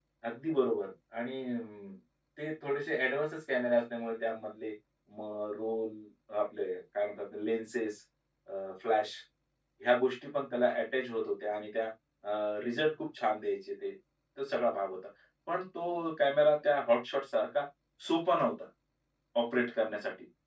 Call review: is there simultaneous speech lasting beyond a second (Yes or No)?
No